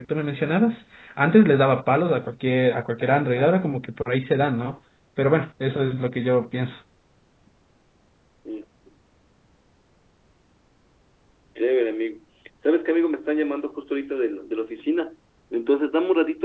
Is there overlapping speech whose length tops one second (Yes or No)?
No